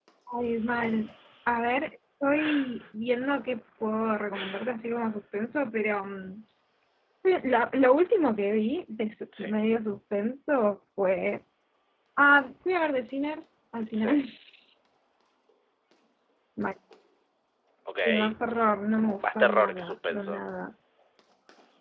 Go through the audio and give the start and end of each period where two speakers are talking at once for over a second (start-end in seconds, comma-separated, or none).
19.2-20.4